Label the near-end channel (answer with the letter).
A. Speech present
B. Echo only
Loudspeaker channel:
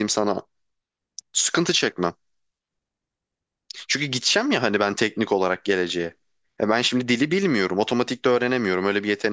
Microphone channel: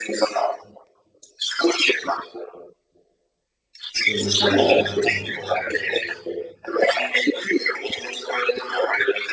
A